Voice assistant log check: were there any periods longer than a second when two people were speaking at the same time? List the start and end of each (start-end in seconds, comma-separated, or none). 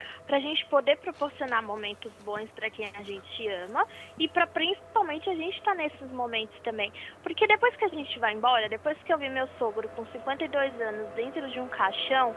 none